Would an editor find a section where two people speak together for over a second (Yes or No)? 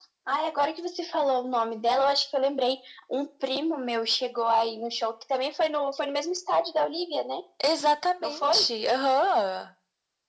No